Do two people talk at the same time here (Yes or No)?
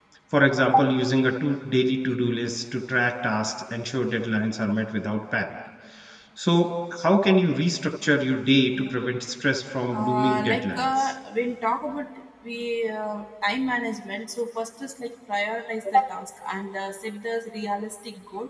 Yes